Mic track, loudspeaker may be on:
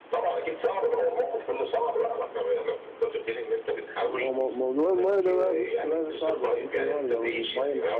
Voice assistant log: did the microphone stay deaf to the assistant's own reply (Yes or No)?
No